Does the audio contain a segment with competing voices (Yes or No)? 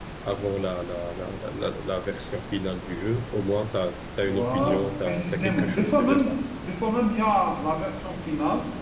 Yes